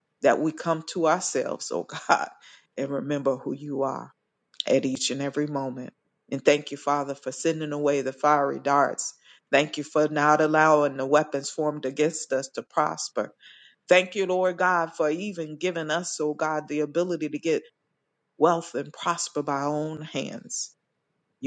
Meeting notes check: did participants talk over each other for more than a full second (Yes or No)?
No